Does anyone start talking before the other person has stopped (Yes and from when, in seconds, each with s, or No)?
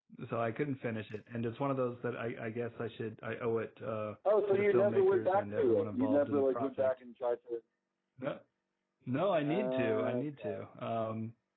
Yes, from 4.5 s